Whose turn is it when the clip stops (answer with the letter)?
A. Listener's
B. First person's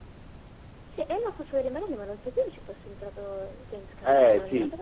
A